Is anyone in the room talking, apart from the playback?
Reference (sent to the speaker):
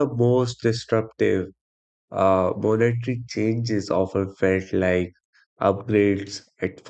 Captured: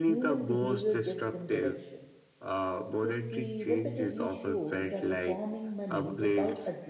Yes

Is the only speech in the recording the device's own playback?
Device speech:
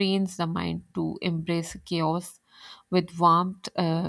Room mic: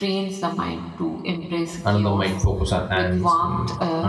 No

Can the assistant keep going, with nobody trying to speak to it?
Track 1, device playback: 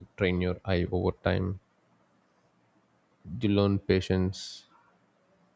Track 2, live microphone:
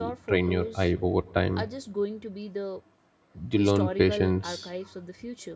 No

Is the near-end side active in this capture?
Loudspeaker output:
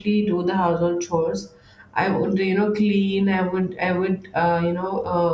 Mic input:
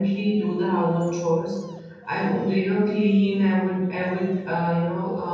No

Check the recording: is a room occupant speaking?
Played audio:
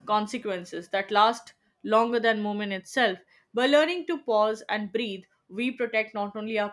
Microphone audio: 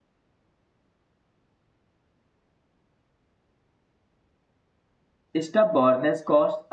Yes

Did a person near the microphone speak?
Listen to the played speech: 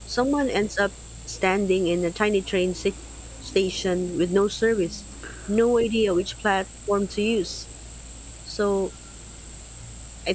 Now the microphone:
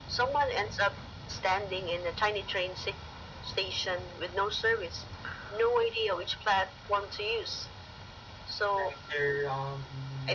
Yes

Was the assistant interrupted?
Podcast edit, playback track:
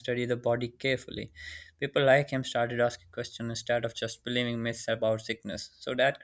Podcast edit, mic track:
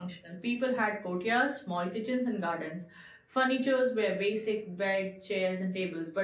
Yes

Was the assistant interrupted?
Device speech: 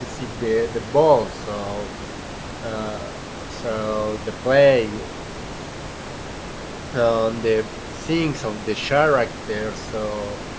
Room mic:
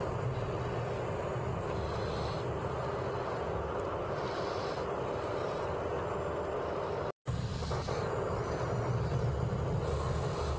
No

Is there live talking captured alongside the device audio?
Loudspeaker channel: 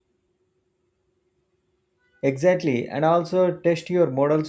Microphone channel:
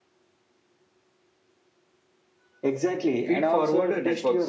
Yes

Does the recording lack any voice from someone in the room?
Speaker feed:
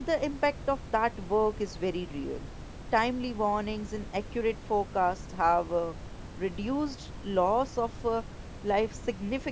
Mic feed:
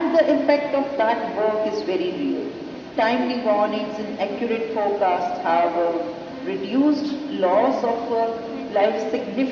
No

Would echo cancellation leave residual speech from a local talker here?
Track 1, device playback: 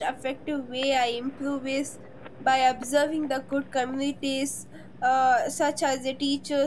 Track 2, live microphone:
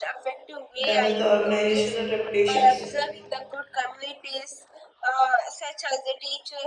Yes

